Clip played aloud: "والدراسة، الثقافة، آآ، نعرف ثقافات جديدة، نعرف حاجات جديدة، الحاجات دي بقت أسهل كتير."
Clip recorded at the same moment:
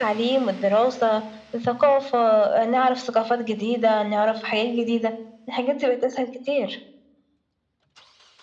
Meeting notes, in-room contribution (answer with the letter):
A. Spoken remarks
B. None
B